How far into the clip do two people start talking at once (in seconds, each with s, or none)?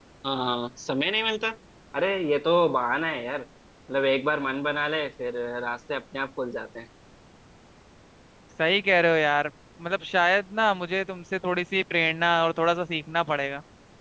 none